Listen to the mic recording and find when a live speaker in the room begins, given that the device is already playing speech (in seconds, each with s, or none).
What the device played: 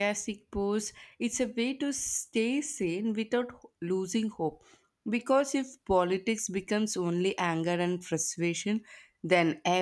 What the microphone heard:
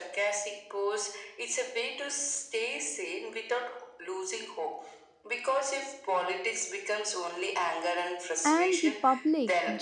8.4 s